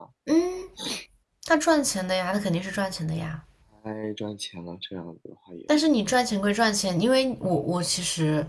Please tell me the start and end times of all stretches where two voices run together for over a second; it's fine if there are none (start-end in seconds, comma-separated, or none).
none